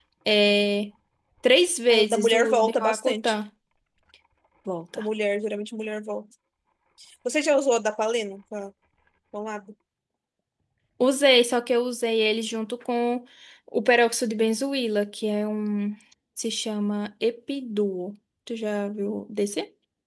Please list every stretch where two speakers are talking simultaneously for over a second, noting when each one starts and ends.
1.9-3.3

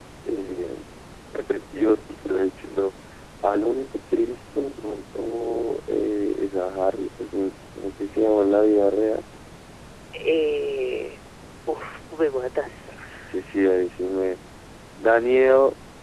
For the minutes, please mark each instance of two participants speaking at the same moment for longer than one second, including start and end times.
none

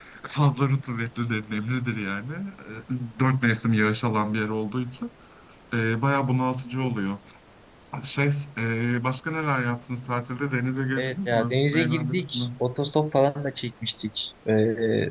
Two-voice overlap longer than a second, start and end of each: 11.0-12.5

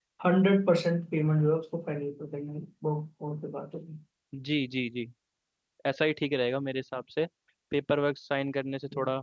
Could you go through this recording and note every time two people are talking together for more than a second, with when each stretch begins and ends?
none

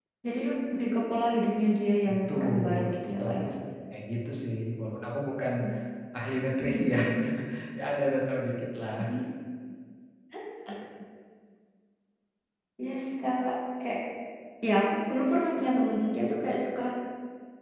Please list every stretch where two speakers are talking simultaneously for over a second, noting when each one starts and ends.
2.1-3.4

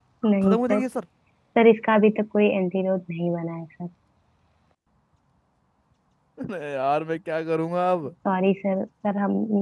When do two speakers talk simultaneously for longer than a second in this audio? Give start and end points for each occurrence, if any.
none

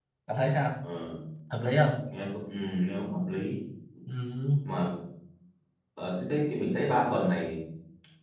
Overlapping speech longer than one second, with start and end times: none

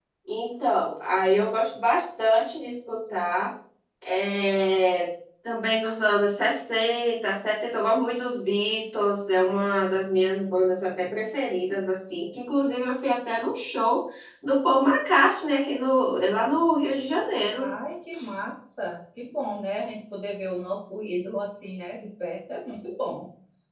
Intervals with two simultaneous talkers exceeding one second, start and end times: none

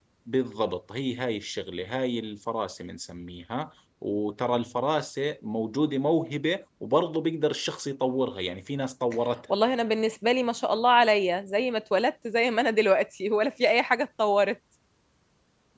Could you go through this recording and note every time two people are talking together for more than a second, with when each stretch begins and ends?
none

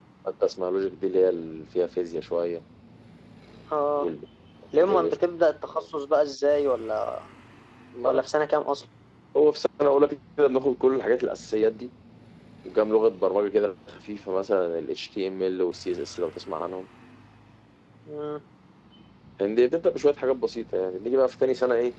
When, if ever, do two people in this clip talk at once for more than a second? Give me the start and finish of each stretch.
none

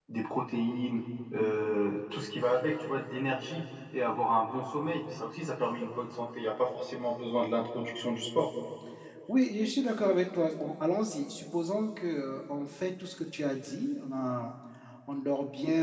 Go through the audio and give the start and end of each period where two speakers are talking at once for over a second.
none

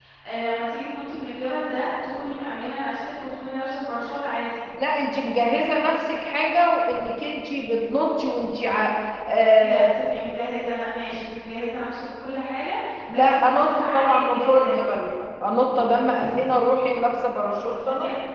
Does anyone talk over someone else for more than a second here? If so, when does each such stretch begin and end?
13.1-14.8

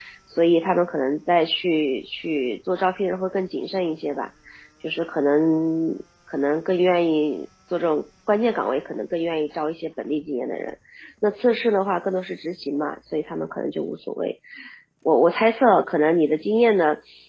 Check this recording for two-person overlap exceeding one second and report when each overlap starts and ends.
none

